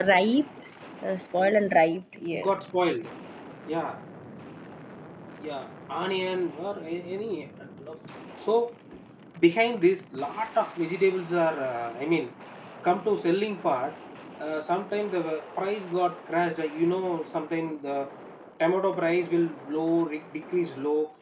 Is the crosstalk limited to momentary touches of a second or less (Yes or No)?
Yes